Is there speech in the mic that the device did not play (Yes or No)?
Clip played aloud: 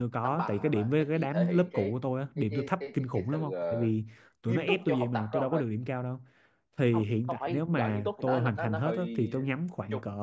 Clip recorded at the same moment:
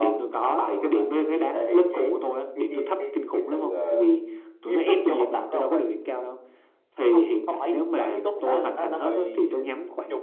No